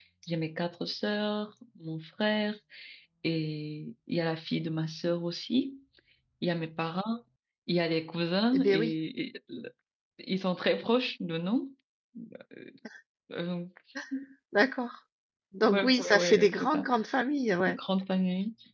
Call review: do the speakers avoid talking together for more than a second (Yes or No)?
No